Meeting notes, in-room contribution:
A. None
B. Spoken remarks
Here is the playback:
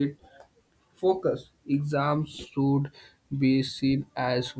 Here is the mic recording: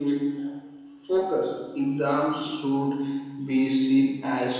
A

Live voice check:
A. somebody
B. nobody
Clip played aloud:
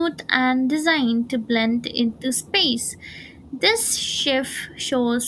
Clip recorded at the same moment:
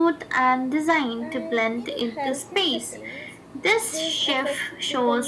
A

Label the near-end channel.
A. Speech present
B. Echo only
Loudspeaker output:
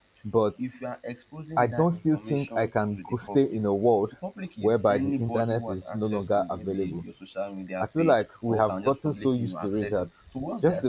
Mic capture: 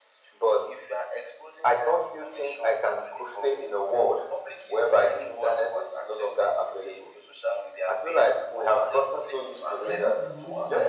A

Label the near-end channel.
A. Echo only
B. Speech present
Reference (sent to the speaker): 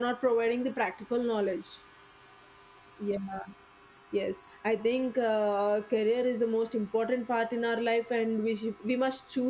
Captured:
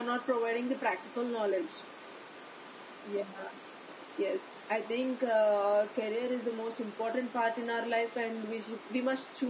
A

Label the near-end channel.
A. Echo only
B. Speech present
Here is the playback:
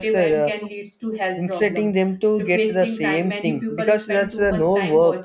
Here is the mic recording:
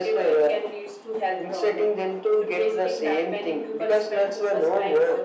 A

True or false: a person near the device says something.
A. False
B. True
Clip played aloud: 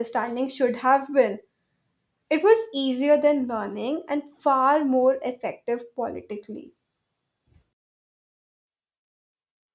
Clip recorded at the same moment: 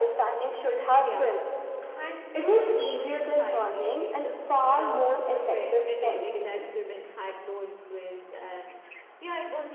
B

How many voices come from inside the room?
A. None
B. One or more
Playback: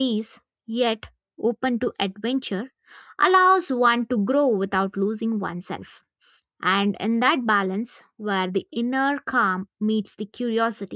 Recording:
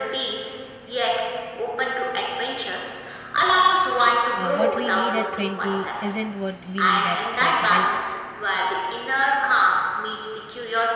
B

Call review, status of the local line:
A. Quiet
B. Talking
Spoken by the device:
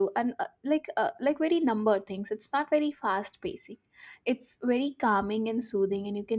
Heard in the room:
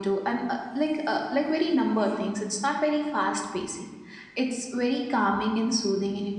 A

